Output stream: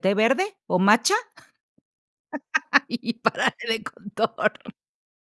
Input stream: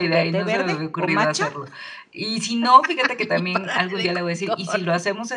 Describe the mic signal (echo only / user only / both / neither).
both